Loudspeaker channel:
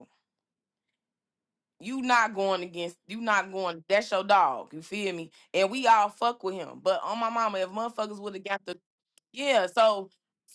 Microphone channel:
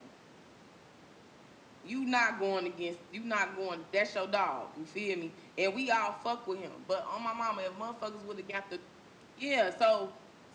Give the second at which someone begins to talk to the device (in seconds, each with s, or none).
none